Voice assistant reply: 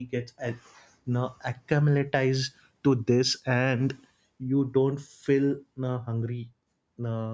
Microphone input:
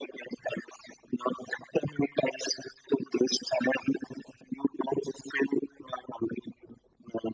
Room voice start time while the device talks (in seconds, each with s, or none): none